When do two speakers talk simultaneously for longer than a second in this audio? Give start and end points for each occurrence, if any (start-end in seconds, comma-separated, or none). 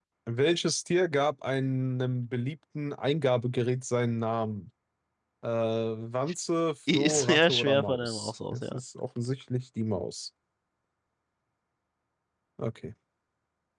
6.9-8.8